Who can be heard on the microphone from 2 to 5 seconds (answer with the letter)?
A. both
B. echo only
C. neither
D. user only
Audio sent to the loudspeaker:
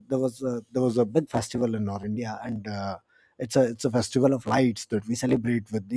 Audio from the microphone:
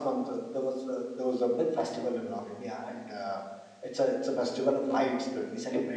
B